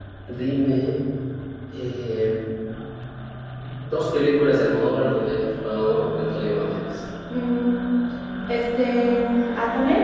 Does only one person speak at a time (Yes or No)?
Yes